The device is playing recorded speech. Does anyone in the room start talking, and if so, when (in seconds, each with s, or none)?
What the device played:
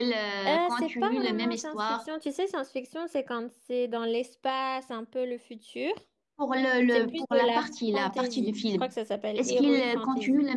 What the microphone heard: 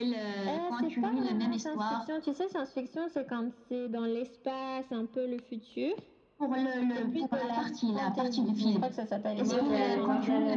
8.6 s